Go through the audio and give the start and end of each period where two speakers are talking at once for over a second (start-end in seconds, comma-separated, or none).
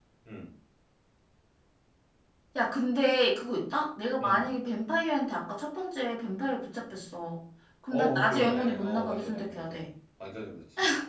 7.9-9.8